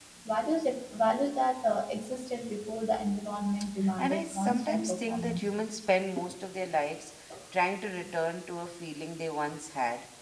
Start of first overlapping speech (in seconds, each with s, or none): 4.0 s